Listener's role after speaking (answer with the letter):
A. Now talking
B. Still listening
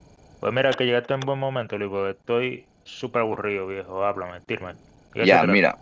A